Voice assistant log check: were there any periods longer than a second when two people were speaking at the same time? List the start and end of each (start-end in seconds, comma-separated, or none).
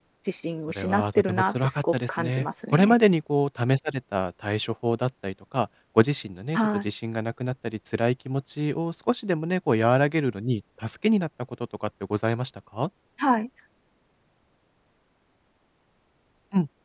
0.7-3.0